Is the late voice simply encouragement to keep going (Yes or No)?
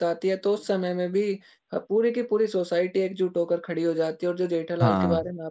Yes